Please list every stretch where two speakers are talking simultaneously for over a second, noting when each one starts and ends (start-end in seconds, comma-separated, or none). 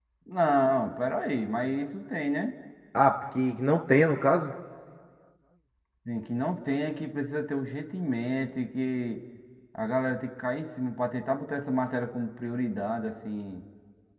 none